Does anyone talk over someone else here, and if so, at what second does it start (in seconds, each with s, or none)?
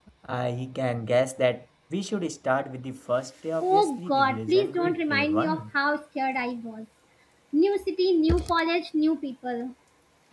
3.6 s